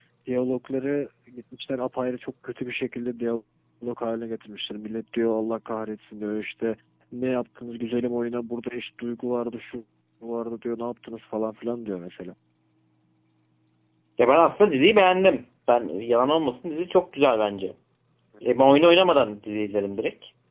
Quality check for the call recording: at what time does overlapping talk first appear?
none

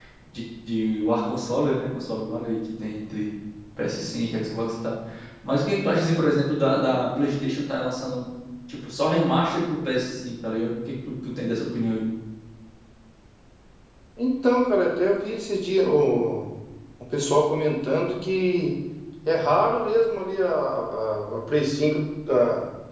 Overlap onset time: none

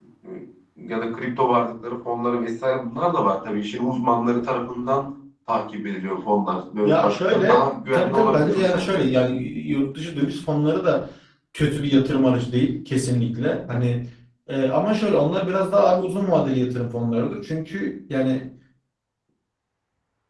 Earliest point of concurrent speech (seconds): 6.8 s

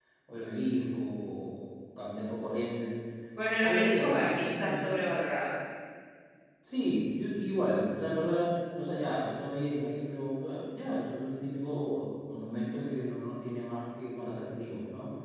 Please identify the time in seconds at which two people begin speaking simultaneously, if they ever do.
3.6 s

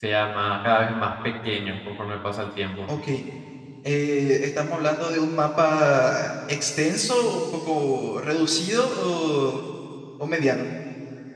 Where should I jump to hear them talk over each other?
none

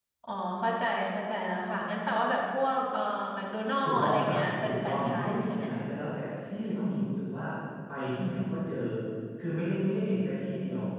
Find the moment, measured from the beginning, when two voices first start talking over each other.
3.8 s

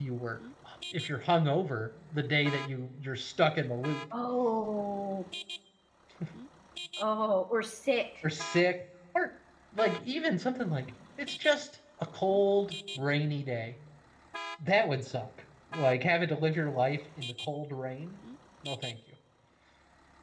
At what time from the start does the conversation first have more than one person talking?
none

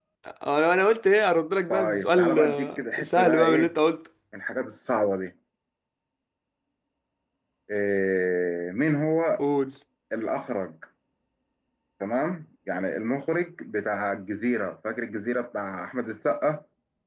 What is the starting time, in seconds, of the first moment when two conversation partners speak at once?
1.7 s

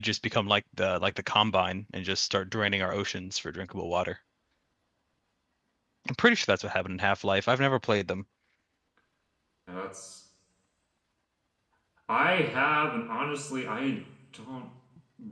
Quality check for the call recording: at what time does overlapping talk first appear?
none

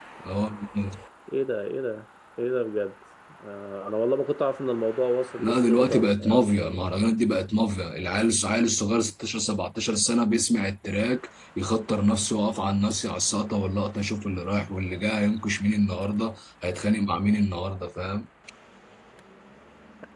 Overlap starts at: 5.4 s

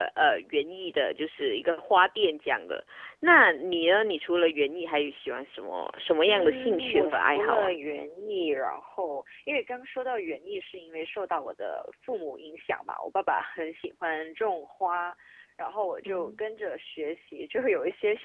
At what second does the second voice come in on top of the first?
6.2 s

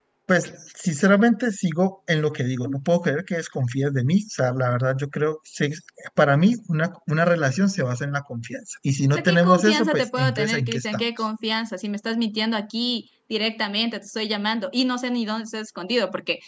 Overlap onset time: 9.1 s

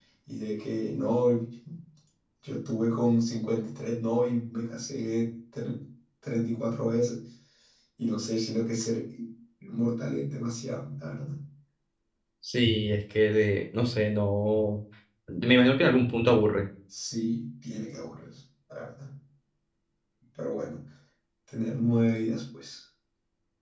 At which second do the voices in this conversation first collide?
none

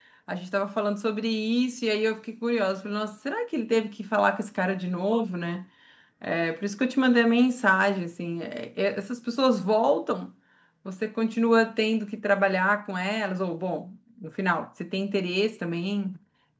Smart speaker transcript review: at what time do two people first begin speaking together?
none

